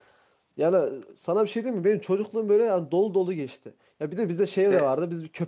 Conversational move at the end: listening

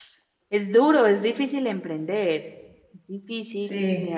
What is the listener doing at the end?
listening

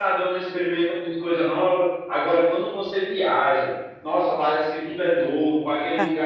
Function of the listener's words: listening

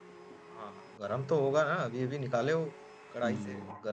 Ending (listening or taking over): taking over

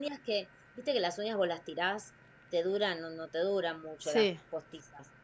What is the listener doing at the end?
listening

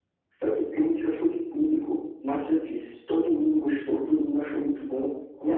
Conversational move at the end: listening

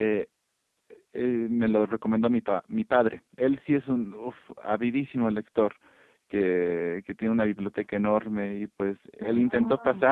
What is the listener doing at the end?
listening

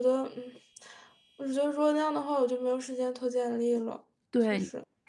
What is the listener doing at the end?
taking over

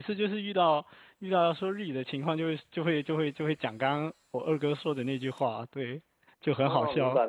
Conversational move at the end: taking over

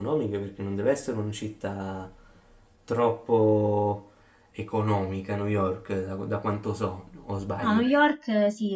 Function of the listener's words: taking over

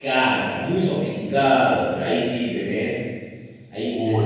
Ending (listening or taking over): listening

